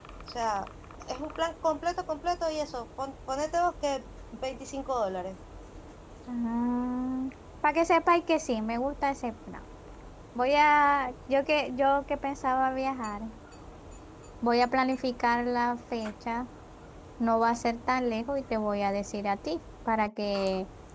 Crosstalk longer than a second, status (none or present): none